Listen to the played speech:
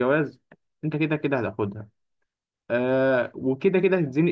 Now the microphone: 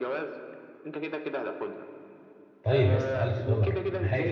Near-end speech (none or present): present